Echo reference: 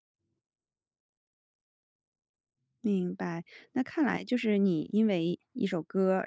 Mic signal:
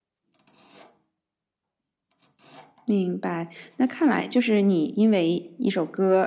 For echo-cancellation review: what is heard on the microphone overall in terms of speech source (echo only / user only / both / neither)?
echo only